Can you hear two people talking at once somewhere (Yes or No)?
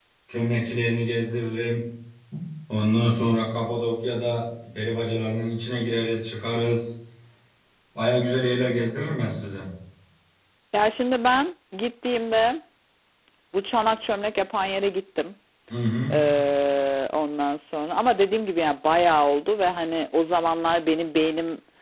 No